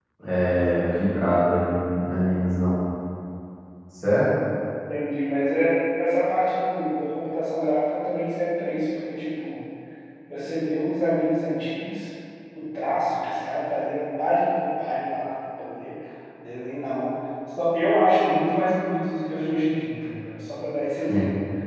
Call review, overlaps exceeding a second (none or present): none